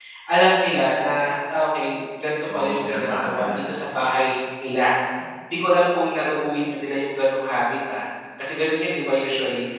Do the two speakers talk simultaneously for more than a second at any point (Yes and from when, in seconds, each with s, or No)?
Yes, from 2.5 s